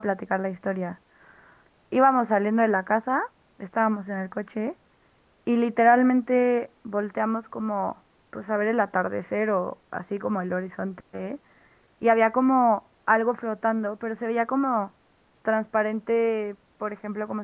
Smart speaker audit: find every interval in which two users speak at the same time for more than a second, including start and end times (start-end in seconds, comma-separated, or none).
none